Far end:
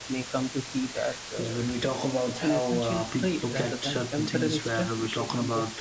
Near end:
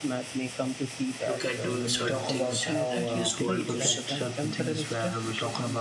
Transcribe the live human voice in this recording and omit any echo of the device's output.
look at doing certain things in, in this world because

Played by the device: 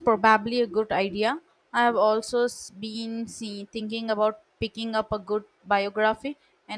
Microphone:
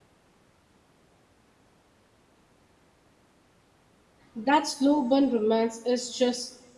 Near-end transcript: That slow burn romance is just

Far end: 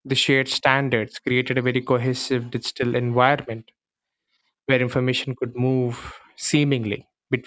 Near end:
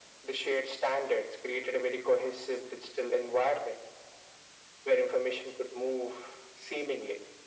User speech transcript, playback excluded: none

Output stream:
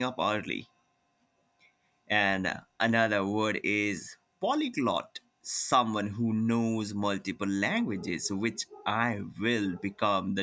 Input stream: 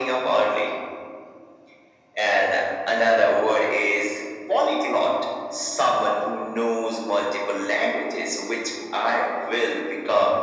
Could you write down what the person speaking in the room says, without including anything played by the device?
none

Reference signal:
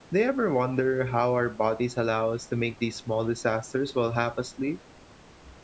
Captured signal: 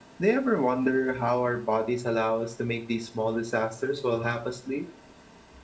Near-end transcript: none

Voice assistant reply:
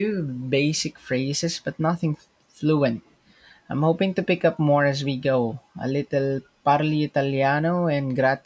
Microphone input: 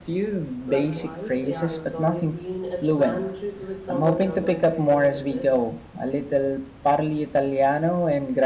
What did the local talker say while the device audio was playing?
Likewise, yeah, it's always been a planned trip with someone you're going to enjoy with it.

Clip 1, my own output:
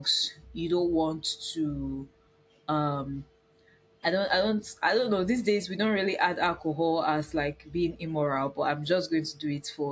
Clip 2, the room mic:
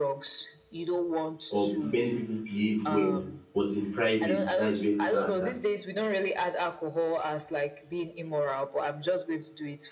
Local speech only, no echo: or many people behave well, but in private, that is where character is

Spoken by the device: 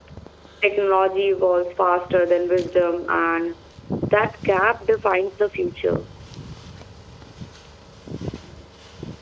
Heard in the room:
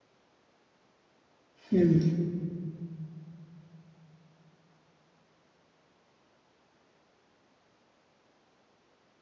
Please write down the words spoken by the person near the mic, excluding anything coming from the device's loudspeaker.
Hmm.

